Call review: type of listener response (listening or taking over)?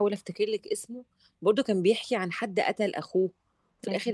listening